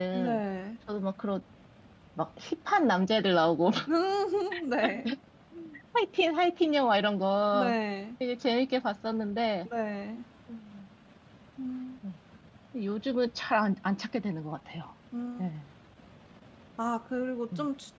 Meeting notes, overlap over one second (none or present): none